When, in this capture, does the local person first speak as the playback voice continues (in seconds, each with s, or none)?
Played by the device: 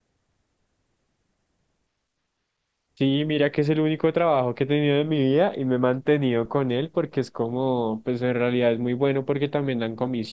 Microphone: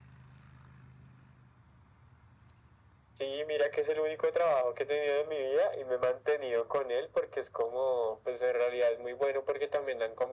none